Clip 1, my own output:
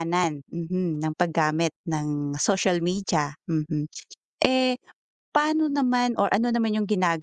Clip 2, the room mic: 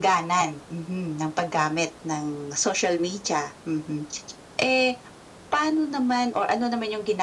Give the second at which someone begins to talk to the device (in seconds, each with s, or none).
none